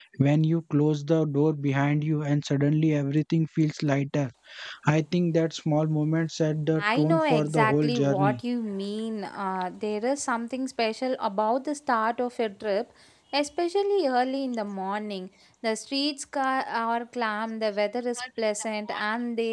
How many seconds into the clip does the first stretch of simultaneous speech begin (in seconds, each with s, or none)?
6.8 s